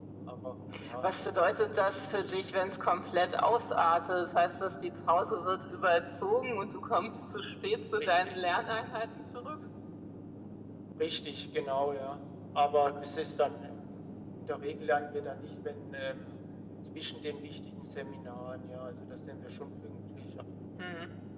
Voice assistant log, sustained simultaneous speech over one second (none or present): present